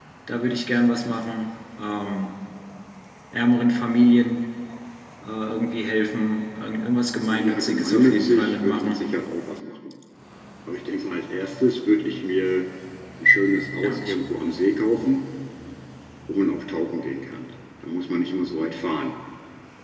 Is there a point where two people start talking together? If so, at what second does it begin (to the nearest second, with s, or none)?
7 s